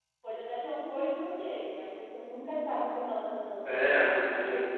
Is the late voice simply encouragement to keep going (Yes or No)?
No